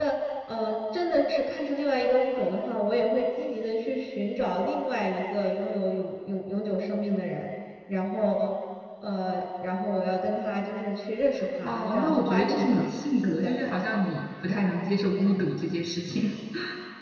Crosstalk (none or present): present